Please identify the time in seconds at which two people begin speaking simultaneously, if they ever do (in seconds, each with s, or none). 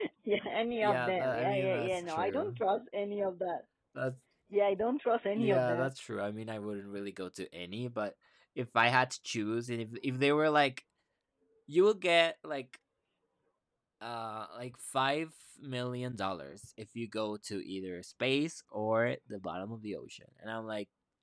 0.8 s